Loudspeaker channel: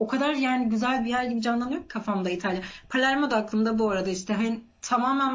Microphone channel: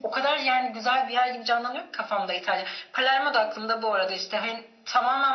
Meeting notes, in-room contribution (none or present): none